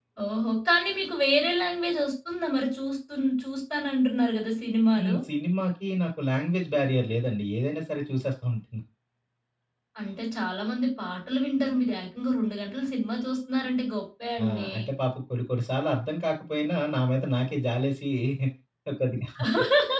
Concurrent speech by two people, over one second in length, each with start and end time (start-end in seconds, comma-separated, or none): none